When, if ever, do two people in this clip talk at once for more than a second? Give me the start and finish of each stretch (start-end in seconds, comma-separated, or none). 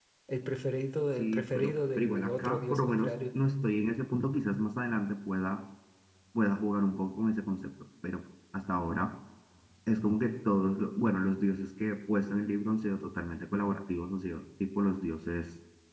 1.1-3.1